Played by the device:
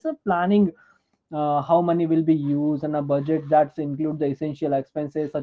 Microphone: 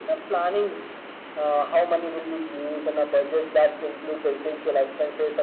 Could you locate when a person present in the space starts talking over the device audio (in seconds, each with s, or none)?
none